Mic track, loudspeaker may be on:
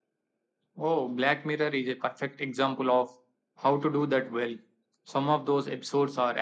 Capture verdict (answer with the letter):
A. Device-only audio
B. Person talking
A